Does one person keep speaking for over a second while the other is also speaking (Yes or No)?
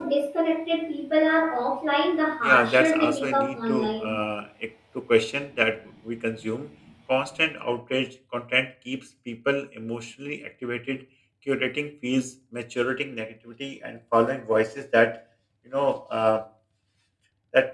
Yes